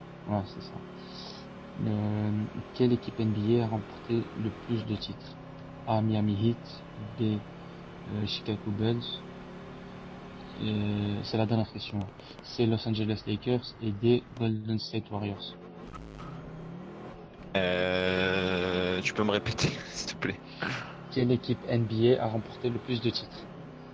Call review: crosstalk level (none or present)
none